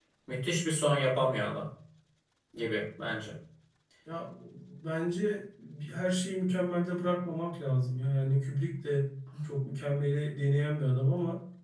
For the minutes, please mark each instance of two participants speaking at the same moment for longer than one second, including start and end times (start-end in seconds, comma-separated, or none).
none